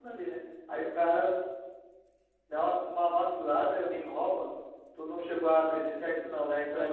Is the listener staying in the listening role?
No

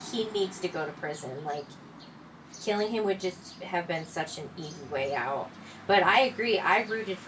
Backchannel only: Yes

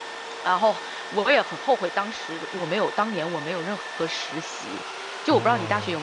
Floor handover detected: Yes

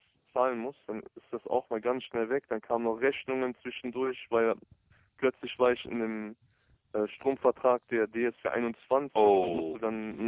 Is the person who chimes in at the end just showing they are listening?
Yes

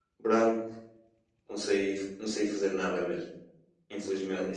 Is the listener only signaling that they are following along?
No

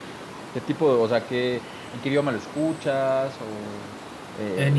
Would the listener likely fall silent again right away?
No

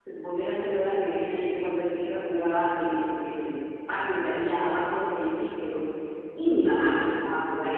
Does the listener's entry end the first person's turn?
No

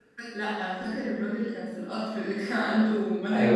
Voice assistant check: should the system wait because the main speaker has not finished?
No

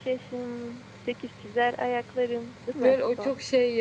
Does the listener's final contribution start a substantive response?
Yes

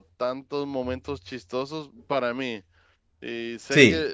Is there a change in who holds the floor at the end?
No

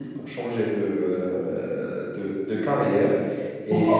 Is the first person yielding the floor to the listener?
Yes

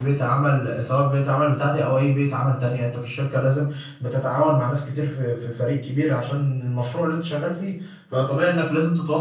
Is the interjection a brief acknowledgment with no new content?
Yes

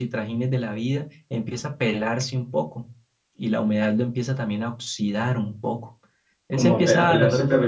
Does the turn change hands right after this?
Yes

